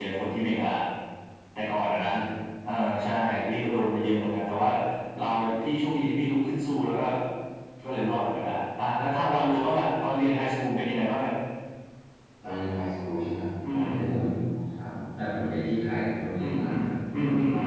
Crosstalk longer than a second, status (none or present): none